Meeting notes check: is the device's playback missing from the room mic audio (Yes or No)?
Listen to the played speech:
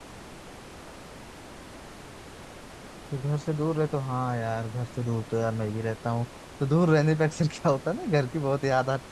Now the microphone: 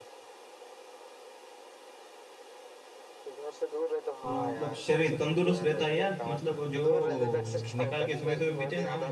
No